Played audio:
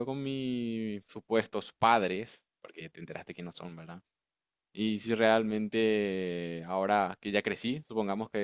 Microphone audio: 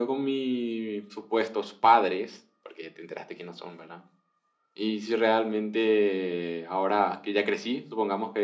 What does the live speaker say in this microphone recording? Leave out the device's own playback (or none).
none